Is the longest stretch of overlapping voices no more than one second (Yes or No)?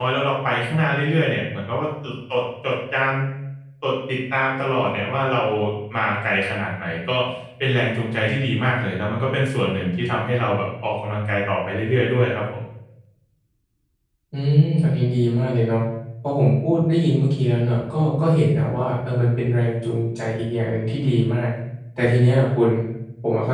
Yes